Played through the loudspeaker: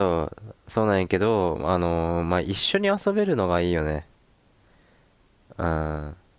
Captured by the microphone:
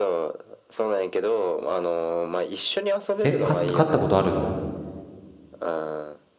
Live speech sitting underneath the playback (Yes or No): No